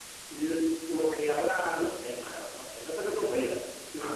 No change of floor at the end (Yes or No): No